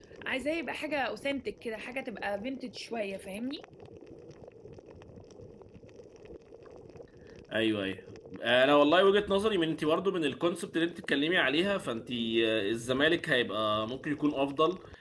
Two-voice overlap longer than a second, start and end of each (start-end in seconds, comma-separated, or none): none